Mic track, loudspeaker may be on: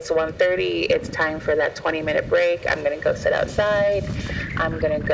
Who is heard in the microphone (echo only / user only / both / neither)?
echo only